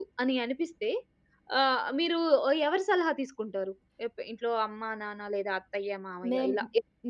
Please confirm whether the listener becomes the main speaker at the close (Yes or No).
Yes